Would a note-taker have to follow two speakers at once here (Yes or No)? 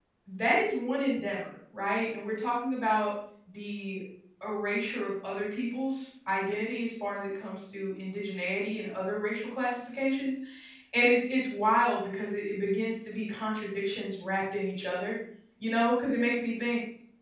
No